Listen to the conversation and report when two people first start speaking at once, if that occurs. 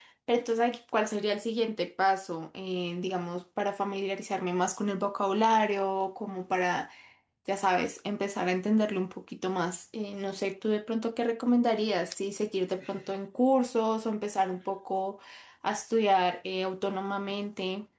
none

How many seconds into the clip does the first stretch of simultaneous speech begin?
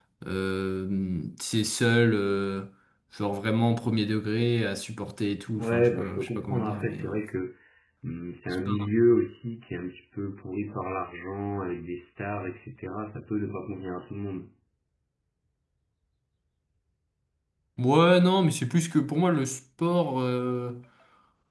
5.6 s

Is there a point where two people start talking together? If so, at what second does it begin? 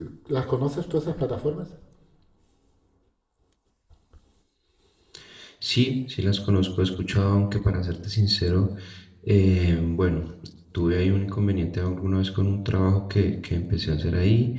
none

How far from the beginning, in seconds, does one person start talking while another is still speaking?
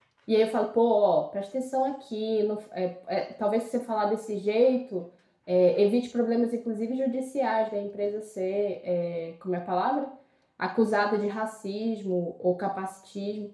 none

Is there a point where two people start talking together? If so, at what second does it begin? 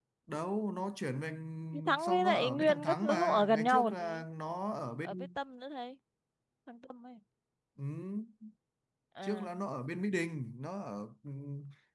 2.0 s

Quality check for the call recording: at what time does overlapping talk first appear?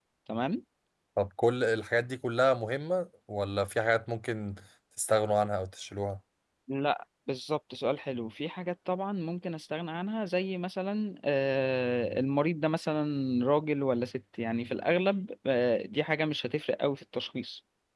none

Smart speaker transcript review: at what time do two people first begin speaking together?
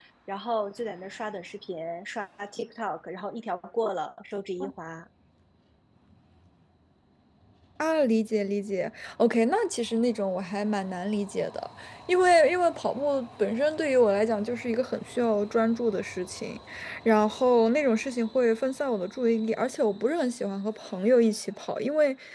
none

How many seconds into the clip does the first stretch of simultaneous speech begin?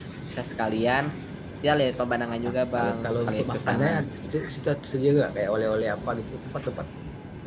2.4 s

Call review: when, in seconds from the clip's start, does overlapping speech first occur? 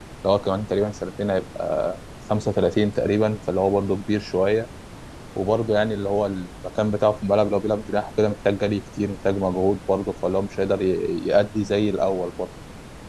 none

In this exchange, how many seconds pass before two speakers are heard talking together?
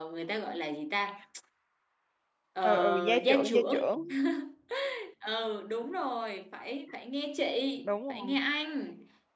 2.6 s

